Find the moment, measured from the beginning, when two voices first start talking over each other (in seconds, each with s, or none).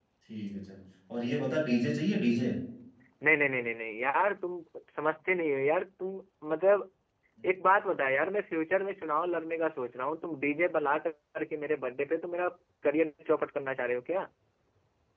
none